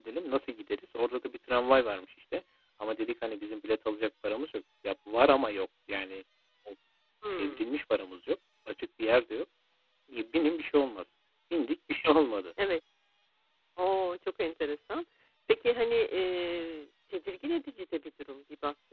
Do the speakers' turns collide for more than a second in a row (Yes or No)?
No